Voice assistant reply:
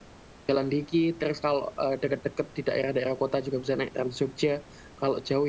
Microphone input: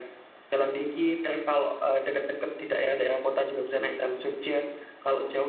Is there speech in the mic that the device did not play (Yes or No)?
No